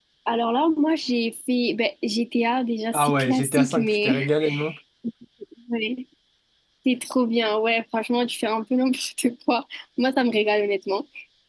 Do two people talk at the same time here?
Yes, from 2.9 s

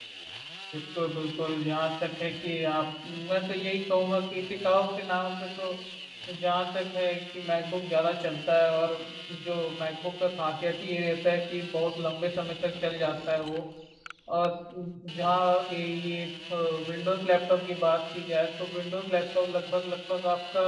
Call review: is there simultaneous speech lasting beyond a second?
No

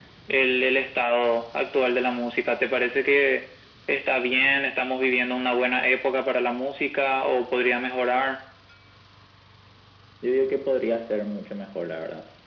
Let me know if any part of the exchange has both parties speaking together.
No

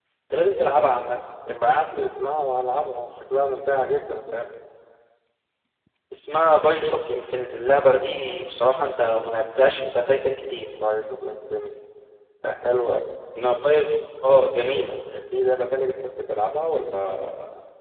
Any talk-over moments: No

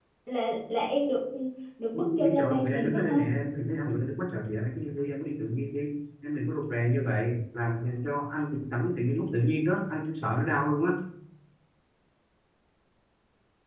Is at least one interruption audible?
Yes, from 1.9 s

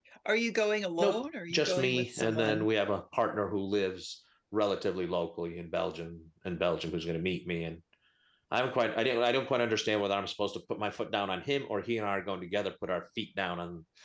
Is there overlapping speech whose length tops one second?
Yes, from 1.0 s

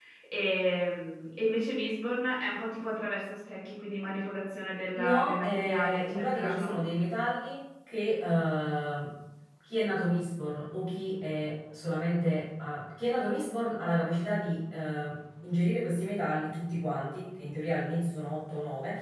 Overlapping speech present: Yes, from 5.0 s

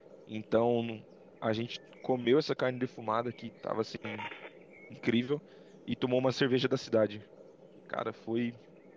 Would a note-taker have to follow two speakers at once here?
No

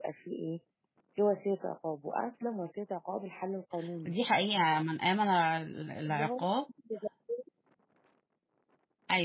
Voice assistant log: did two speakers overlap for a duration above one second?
No

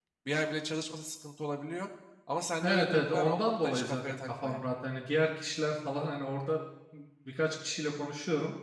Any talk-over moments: Yes, from 2.6 s

